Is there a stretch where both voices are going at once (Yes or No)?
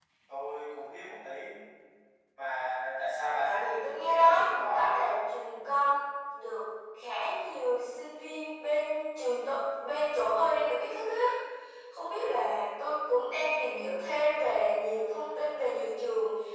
Yes